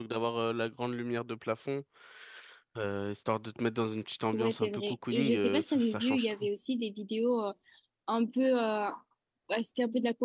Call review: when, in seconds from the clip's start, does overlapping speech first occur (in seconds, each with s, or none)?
4.3 s